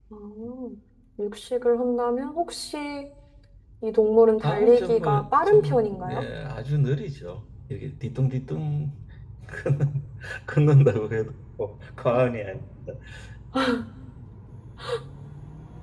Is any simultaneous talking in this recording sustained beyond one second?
Yes, from 4.4 s

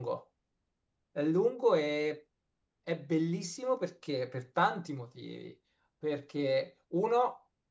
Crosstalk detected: No

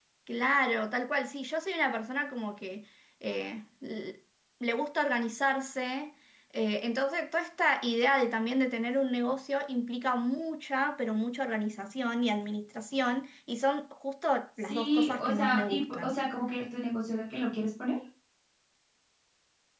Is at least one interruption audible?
Yes, from 14.6 s

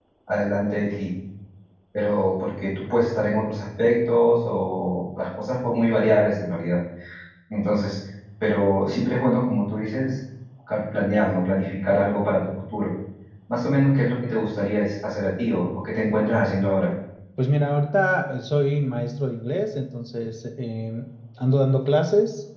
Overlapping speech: No

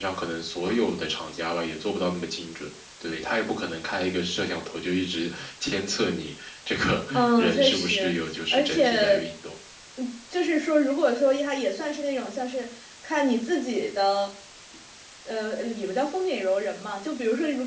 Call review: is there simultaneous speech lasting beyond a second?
Yes, from 7.1 s

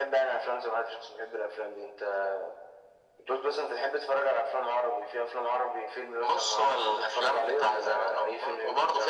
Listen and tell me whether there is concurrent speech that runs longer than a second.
Yes, from 6.2 s

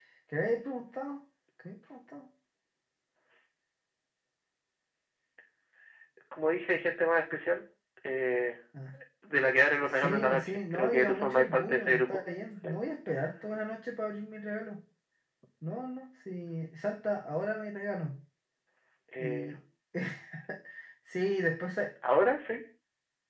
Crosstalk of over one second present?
Yes, from 9.9 s

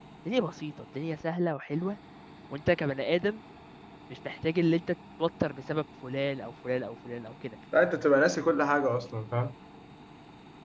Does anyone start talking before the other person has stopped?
No

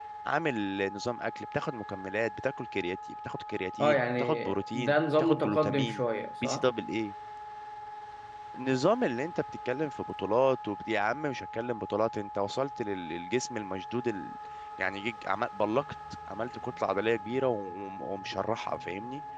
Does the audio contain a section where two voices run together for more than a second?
Yes, from 3.8 s

